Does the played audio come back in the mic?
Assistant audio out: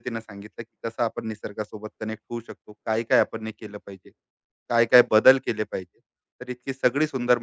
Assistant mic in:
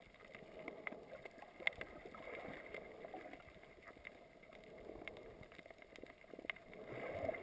No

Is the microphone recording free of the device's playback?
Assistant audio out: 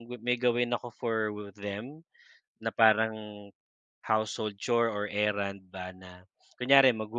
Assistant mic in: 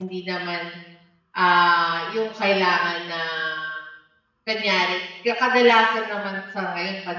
Yes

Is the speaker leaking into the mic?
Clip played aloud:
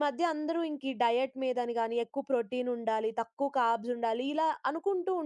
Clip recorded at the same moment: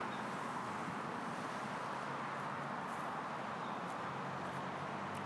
No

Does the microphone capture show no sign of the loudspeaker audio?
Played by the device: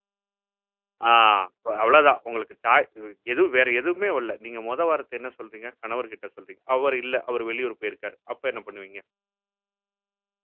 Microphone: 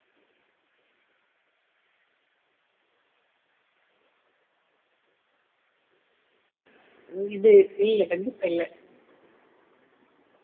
Yes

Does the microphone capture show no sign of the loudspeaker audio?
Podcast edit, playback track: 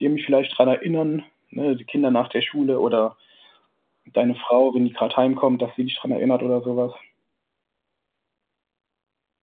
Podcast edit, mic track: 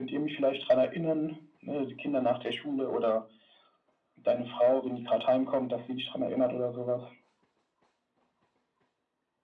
No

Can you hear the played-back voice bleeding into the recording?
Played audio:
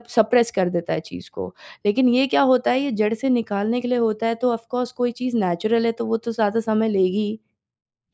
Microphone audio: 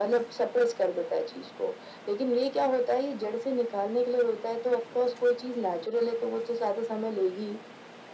Yes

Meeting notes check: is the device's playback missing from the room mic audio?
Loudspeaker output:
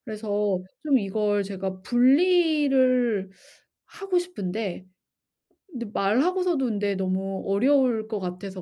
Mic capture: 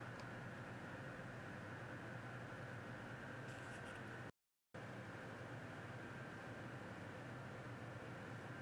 Yes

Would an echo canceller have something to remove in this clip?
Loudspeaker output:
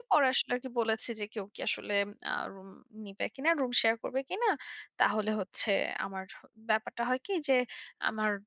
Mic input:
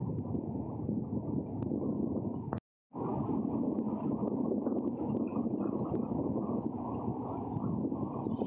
No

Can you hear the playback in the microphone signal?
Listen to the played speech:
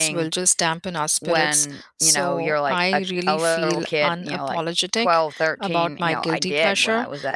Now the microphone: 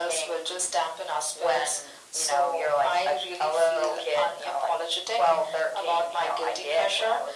Yes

